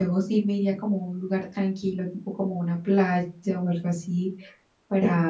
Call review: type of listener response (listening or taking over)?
listening